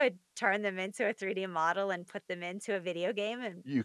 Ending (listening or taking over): taking over